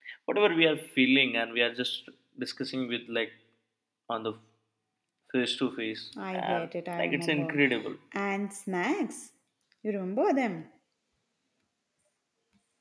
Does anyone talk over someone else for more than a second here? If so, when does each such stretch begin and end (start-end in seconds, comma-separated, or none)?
6.3-7.6